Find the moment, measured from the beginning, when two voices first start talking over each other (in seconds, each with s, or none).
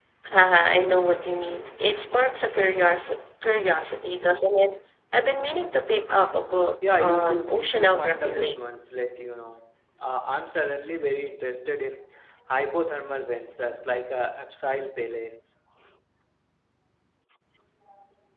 6.8 s